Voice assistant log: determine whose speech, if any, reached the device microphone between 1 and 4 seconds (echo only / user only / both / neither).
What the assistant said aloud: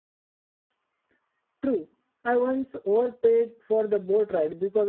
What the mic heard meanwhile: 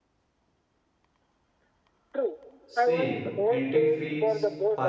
both